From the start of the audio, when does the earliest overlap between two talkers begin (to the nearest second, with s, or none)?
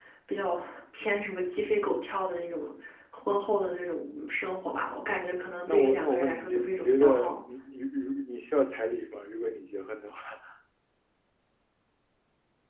6 s